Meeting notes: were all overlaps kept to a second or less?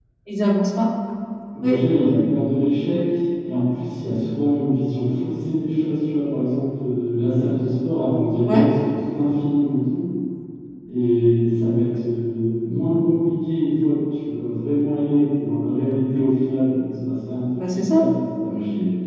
Yes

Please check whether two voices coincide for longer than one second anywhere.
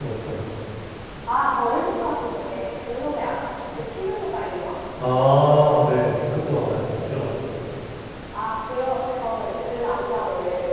No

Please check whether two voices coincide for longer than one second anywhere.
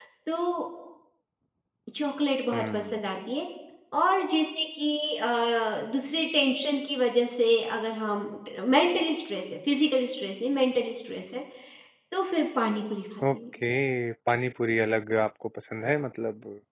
No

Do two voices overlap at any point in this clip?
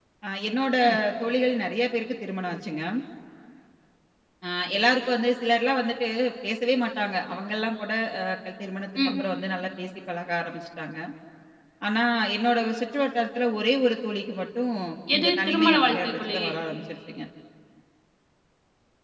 Yes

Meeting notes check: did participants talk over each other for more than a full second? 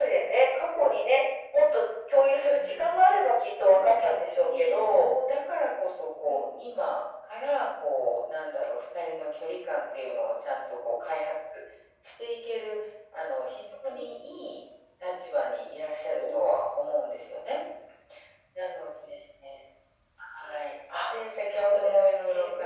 Yes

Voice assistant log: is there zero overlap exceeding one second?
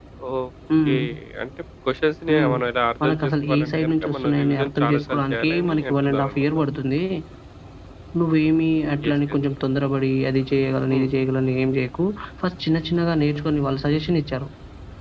No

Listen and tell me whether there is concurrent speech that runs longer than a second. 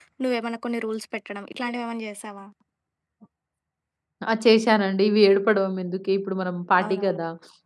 No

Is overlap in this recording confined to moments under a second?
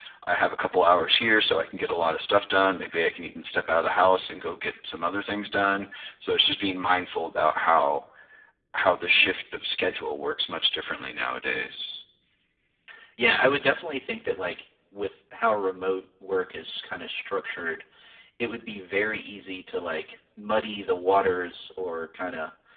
Yes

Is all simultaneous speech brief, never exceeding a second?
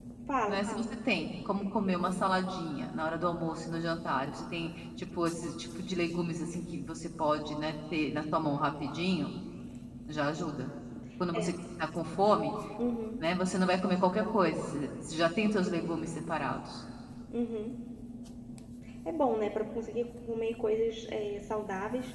Yes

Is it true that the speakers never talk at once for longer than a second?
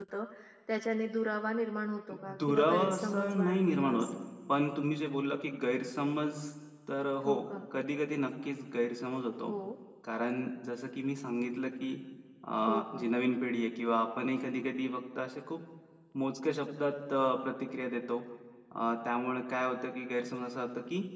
No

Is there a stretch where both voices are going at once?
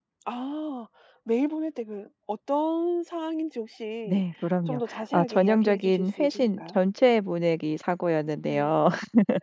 Yes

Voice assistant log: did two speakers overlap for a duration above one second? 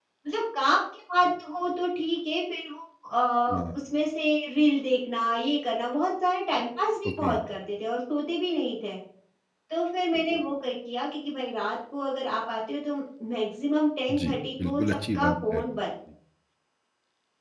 Yes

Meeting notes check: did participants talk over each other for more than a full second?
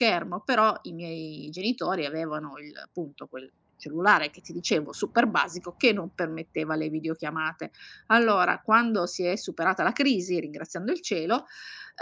No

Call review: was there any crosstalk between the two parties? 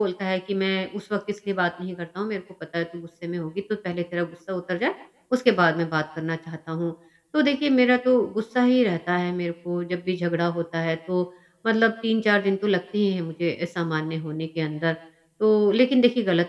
No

